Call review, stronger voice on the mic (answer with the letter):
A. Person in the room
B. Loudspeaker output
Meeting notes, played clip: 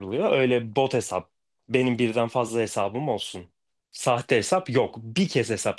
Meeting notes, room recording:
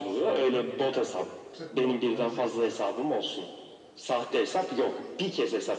B